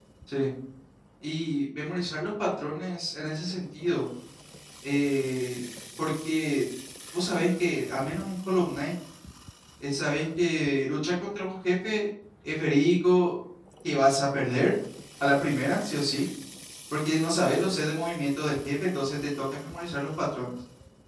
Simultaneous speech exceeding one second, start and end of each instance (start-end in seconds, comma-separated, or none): none